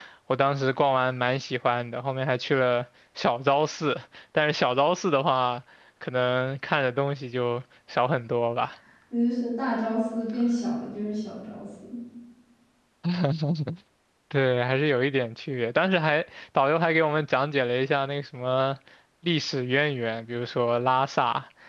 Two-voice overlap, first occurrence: none

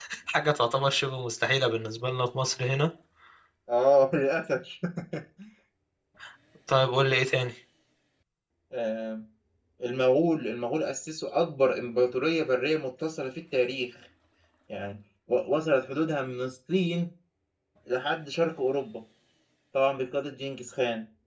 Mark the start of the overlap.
none

